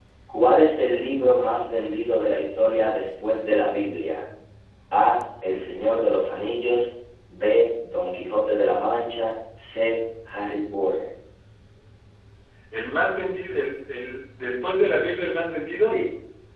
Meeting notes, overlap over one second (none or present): none